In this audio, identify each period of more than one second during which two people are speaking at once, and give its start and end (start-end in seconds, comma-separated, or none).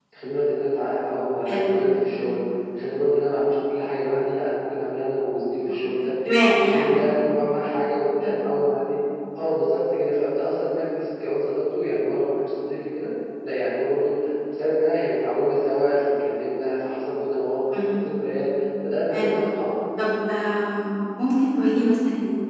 none